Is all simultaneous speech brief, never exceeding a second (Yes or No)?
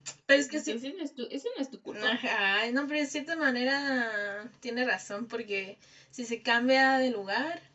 Yes